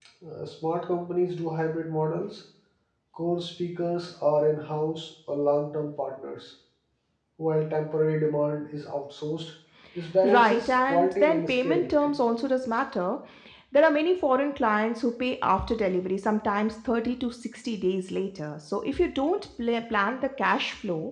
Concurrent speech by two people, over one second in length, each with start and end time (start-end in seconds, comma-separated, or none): 10.2-12.2